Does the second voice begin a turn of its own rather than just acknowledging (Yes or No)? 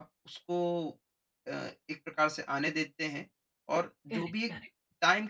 No